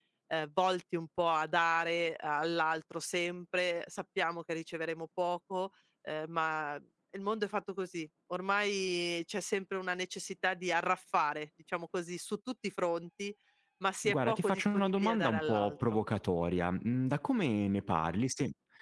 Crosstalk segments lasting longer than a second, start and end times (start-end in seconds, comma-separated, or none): 14.0-16.0